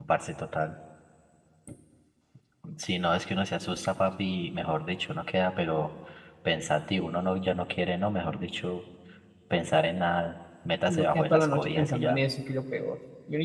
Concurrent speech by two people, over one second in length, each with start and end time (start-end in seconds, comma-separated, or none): 10.9-12.2